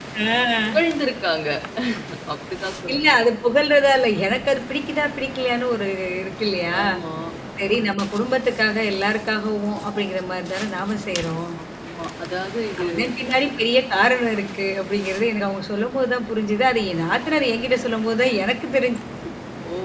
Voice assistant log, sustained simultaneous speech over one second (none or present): none